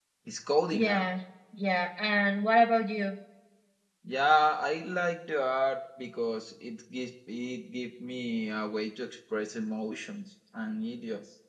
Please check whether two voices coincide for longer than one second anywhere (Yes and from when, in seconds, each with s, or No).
No